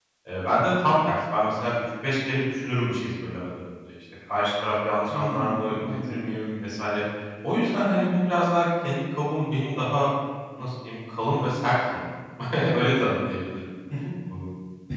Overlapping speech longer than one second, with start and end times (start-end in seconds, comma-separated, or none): 5.1-6.4